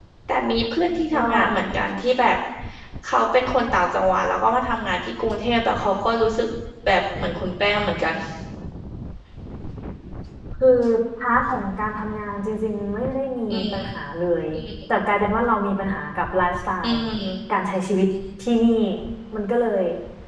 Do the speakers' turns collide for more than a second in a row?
No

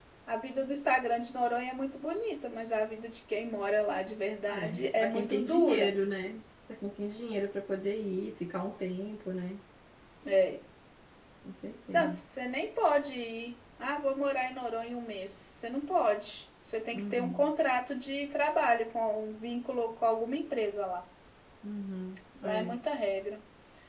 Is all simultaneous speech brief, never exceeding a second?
No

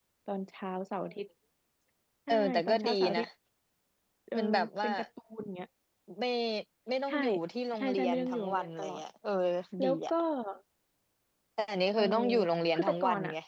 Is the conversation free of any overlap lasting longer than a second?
No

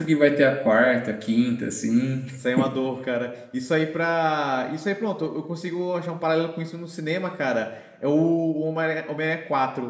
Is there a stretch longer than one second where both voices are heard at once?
No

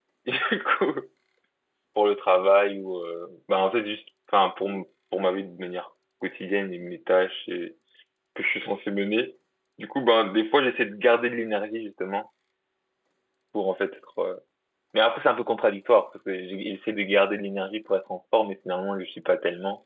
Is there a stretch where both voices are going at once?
No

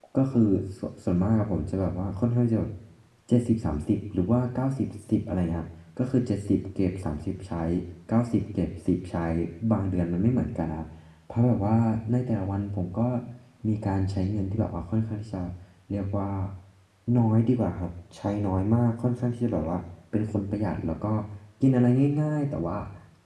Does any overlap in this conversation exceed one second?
No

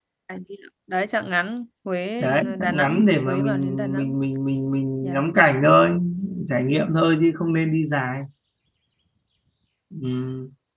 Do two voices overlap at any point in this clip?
Yes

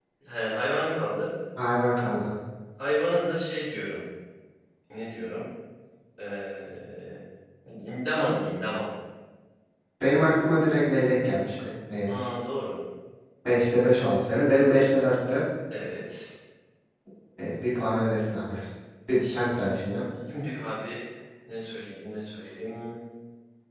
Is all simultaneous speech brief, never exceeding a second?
Yes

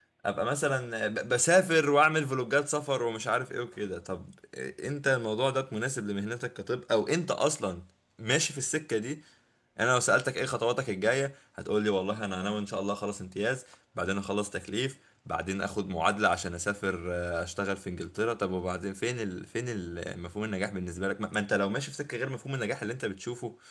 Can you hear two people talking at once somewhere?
No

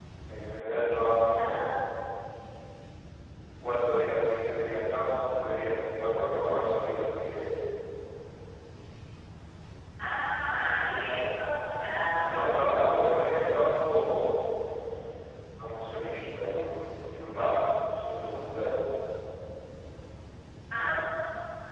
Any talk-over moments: Yes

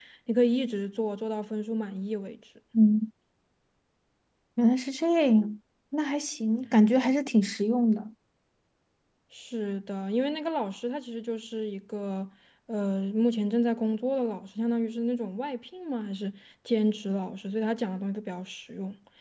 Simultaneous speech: No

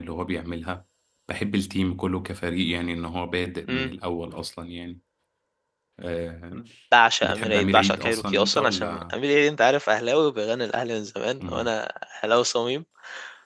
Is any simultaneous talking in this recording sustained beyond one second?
Yes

